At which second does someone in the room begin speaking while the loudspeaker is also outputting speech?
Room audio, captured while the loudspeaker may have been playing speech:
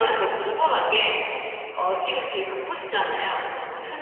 none

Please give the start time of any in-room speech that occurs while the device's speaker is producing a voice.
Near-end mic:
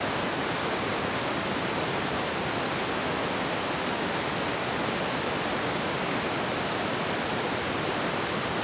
none

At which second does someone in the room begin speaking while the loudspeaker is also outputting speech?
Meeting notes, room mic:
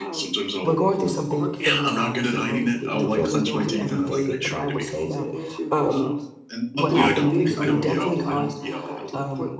0.6 s

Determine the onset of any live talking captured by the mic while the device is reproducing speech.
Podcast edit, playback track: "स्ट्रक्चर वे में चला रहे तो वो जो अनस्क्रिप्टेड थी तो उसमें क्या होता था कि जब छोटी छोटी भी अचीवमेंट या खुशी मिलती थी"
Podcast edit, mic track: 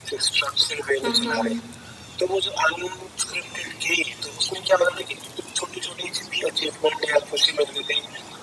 1.1 s

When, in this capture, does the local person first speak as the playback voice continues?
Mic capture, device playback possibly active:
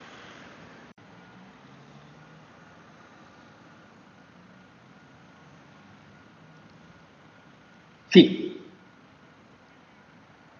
8.1 s

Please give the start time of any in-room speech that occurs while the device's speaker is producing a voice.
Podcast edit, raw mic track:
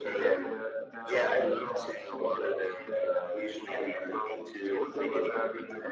1.4 s

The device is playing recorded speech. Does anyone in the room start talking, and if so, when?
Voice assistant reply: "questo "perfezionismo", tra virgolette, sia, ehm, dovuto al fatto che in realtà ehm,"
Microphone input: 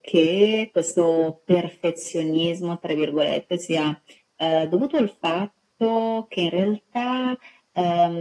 none

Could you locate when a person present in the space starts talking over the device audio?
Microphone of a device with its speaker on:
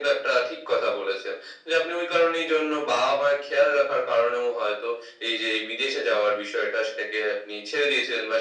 none

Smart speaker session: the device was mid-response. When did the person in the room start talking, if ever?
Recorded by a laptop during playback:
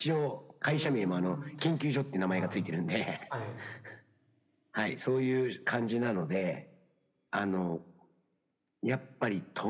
0.7 s

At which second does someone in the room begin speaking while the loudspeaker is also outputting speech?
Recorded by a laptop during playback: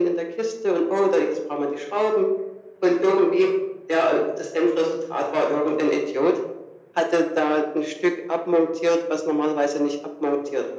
none

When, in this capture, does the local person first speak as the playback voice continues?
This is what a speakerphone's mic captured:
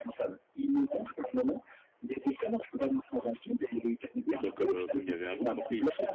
4.2 s

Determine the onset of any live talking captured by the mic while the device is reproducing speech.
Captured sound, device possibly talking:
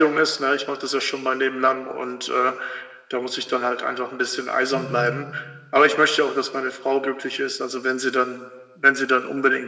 4.7 s

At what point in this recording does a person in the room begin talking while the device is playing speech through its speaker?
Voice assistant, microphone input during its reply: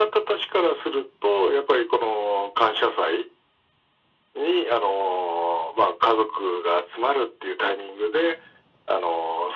none

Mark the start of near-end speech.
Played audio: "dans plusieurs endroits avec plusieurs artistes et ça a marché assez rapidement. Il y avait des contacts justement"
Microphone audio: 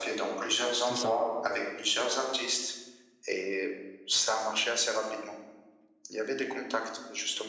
0.8 s

